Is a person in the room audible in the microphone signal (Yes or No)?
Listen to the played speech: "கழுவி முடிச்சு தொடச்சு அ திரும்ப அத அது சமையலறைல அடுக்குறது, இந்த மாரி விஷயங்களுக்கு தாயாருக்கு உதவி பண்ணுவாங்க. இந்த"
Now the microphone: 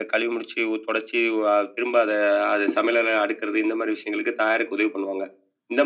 No